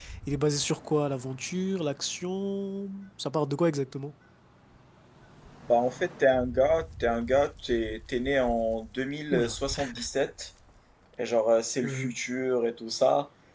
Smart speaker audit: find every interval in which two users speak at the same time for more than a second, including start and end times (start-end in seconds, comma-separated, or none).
none